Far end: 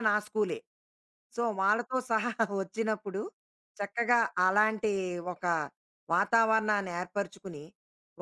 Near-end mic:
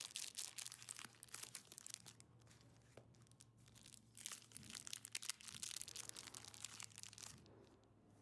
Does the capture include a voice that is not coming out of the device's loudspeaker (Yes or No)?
No